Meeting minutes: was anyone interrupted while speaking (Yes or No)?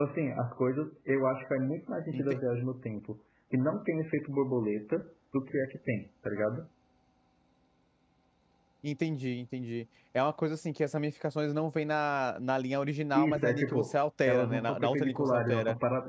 Yes